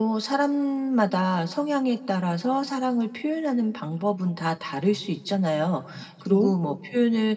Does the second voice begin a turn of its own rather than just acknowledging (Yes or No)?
No